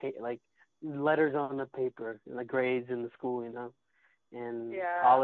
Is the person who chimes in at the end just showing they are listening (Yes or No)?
Yes